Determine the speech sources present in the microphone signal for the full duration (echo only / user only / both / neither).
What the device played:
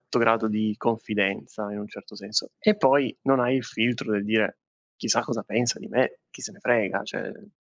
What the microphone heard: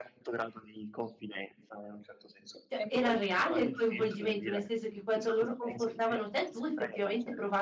both